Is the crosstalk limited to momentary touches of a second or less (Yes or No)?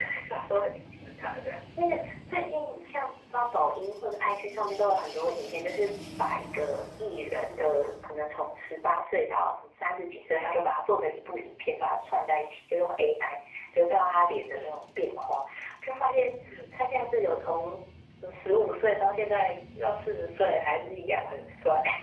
Yes